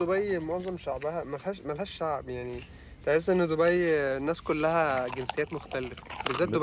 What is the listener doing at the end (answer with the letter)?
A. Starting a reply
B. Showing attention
B